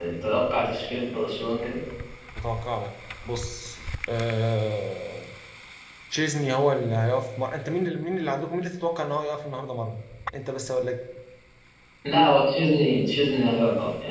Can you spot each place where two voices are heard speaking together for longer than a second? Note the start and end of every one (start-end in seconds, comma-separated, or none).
none